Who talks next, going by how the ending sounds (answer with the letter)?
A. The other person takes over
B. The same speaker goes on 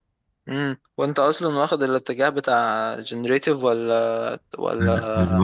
A